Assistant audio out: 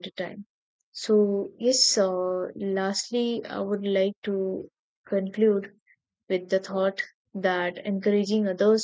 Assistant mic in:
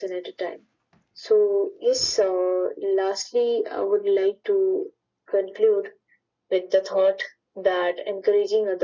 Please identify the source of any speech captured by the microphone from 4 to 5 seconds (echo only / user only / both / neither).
echo only